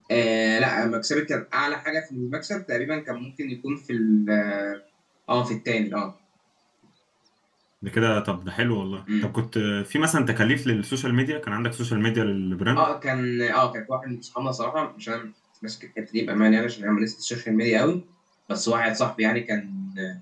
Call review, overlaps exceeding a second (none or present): none